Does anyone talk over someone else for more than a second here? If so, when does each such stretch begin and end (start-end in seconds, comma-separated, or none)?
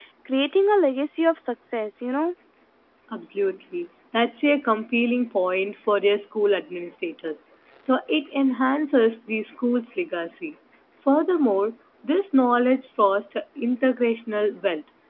none